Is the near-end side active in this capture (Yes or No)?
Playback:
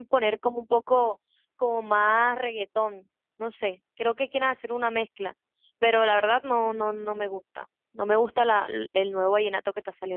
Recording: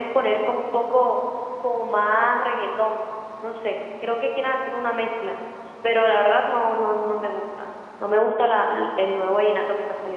No